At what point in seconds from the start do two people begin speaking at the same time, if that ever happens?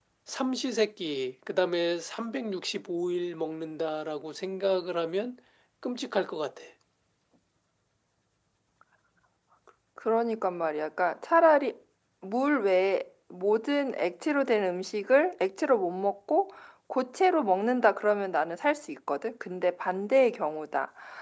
none

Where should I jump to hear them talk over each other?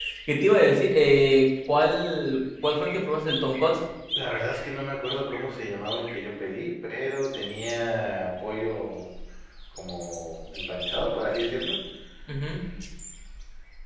none

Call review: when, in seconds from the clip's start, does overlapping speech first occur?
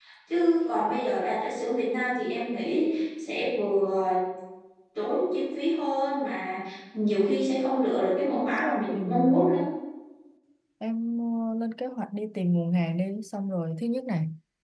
8.3 s

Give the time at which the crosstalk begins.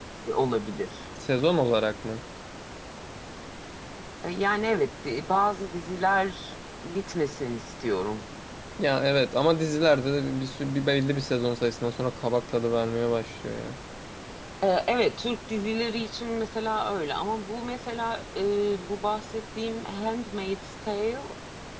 none

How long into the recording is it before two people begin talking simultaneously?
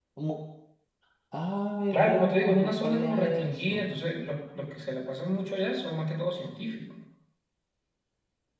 1.9 s

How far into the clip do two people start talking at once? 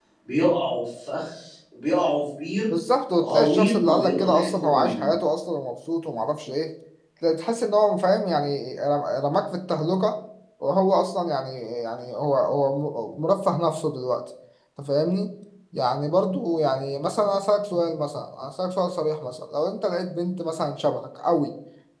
3.2 s

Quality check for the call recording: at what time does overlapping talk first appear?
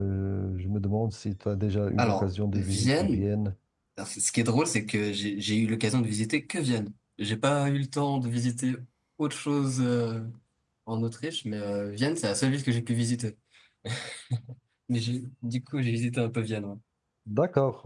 2.0 s

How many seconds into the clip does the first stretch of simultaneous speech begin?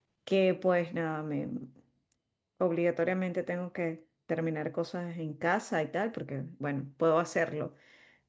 none

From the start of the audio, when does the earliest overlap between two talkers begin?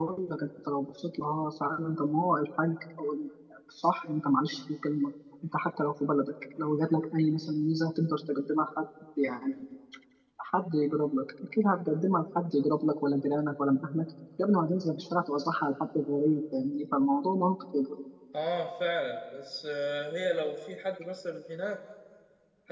none

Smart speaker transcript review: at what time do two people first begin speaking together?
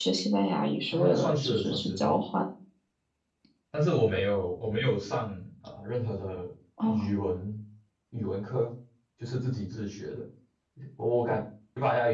0.9 s

